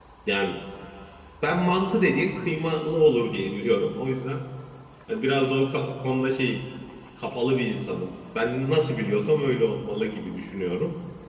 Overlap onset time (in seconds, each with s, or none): none